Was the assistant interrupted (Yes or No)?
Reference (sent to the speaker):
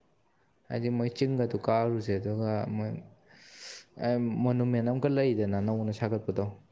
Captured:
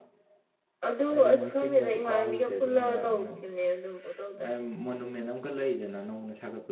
Yes